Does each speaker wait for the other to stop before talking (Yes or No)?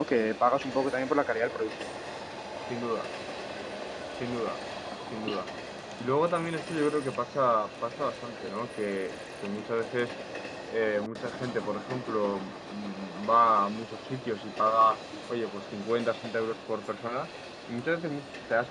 Yes